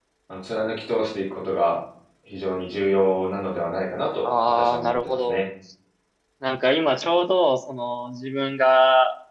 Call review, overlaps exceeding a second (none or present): present